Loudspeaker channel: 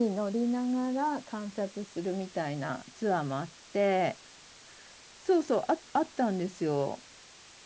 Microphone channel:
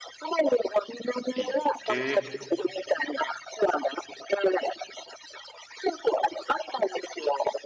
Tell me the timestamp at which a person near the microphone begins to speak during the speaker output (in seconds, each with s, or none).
1.4 s